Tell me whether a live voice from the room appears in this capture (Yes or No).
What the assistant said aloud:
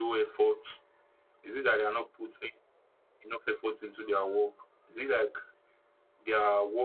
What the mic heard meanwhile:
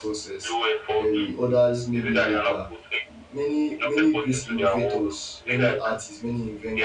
Yes